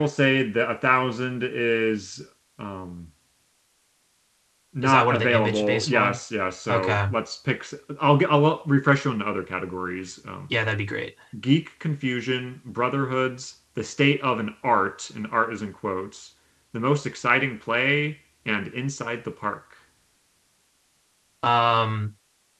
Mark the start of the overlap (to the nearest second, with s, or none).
5 s